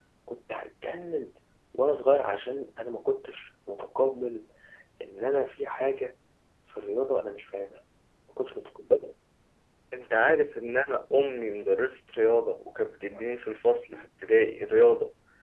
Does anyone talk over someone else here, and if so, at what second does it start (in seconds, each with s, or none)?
none